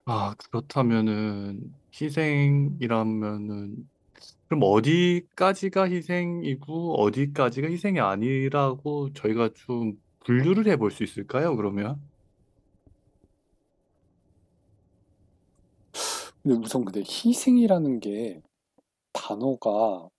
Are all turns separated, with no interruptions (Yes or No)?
Yes